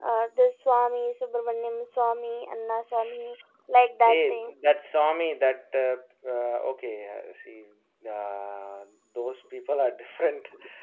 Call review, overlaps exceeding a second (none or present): none